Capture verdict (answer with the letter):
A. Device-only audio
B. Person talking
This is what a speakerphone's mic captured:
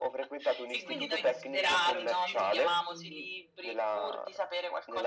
B